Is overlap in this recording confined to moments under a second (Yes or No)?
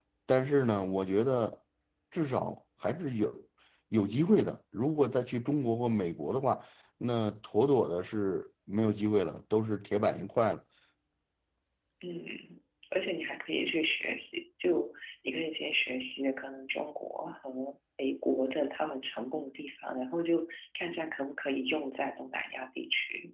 Yes